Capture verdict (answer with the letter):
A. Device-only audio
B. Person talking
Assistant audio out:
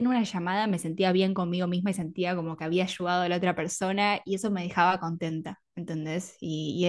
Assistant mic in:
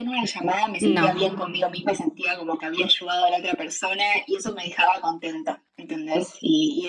B